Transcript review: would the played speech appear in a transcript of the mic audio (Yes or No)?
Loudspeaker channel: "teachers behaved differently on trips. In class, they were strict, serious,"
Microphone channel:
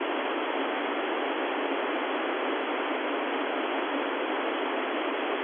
No